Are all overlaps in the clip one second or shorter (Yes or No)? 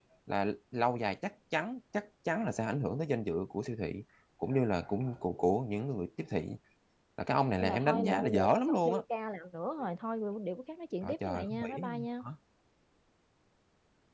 No